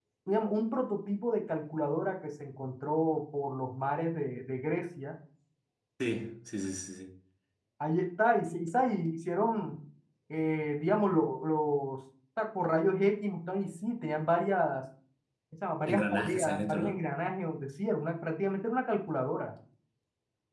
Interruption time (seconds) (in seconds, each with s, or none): 15.9 s